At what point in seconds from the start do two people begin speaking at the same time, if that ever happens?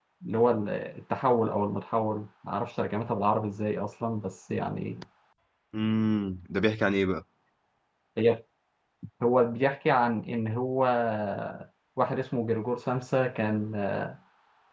none

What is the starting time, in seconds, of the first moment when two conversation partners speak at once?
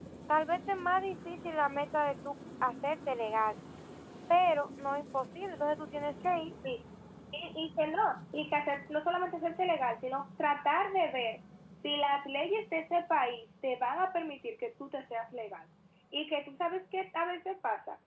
none

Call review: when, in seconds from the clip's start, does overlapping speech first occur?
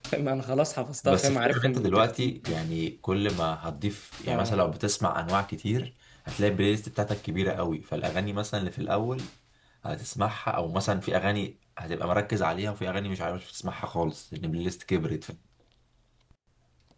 1.0 s

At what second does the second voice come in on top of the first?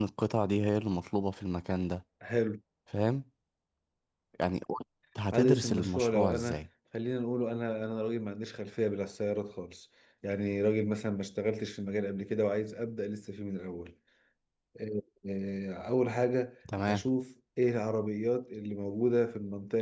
5.3 s

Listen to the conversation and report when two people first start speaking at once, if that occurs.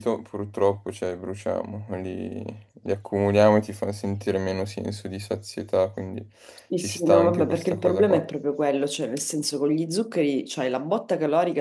6.8 s

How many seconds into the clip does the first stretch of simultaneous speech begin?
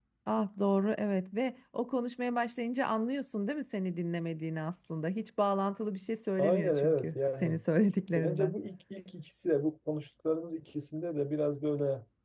6.4 s

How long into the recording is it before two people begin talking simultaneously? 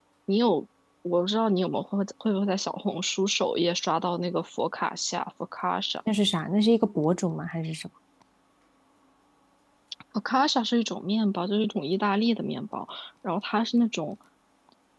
none

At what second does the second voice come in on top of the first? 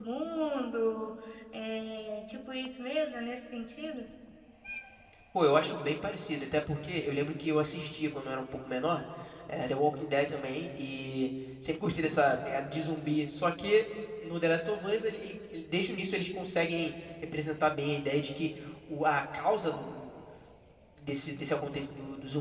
none

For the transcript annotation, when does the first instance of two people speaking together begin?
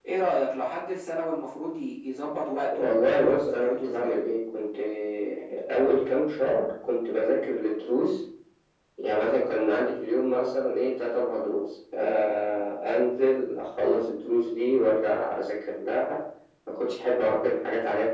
2.7 s

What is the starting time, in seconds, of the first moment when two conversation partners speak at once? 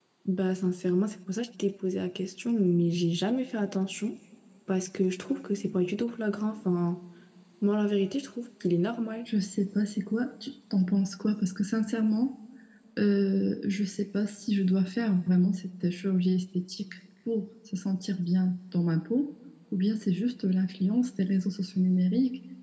none

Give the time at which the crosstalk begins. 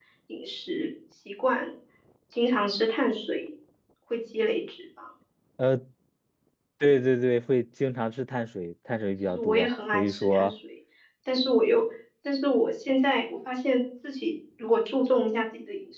9.3 s

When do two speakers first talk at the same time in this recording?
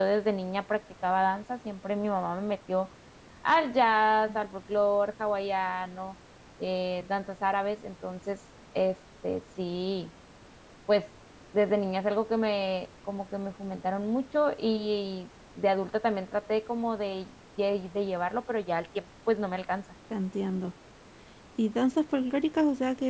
none

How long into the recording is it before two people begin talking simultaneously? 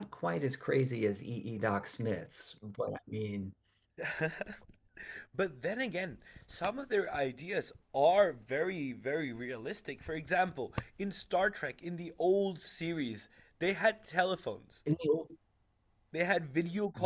none

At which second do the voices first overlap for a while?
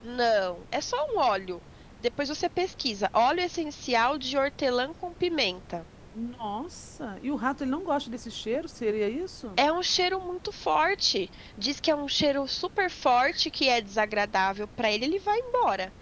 none

